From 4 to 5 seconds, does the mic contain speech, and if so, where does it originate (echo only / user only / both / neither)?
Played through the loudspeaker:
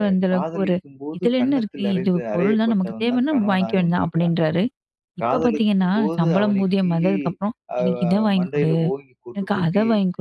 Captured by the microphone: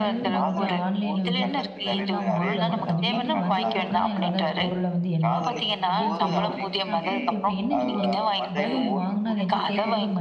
both